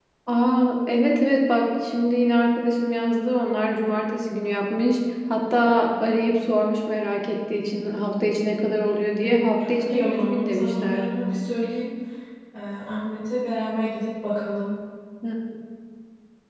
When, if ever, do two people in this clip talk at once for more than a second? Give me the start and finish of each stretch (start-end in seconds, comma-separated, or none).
9.2-11.1